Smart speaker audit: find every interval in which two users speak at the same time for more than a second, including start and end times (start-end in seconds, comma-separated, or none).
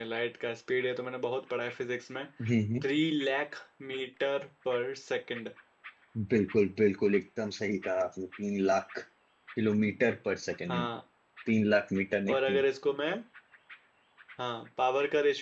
none